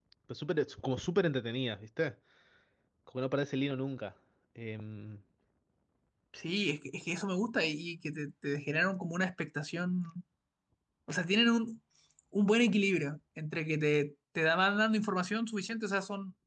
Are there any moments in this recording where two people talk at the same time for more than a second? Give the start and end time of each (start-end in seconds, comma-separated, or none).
none